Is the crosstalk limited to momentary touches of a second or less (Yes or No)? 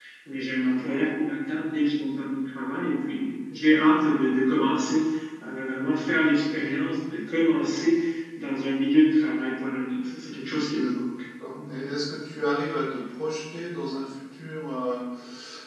Yes